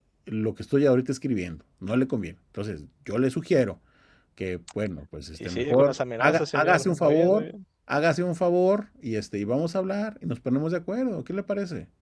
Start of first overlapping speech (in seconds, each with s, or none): 5.3 s